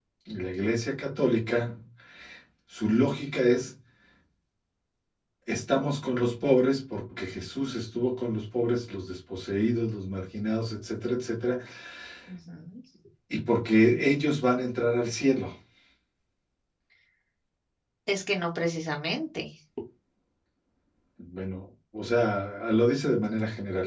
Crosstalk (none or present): none